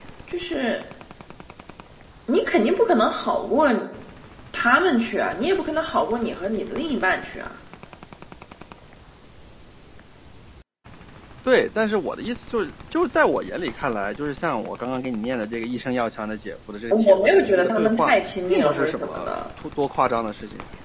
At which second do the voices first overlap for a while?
16.9 s

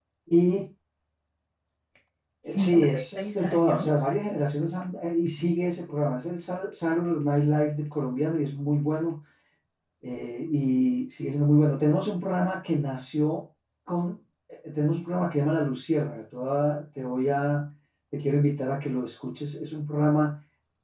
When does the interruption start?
2.5 s

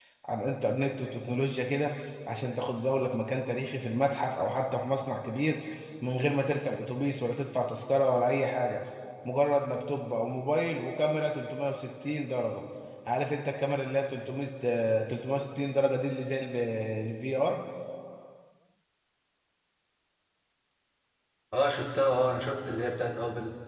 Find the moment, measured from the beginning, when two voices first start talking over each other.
none

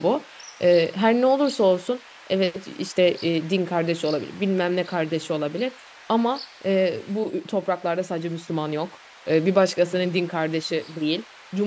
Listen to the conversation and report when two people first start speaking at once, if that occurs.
none

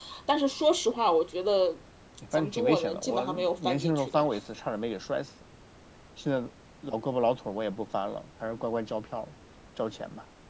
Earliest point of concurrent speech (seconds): 2.3 s

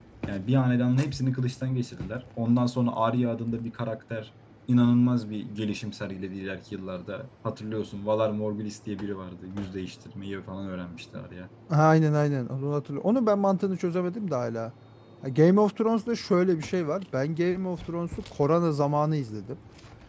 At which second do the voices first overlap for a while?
none

